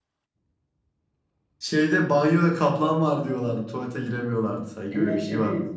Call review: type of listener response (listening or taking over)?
taking over